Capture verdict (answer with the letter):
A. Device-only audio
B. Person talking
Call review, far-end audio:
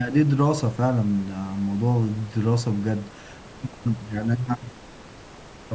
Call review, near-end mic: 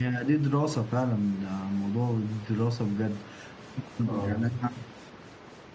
B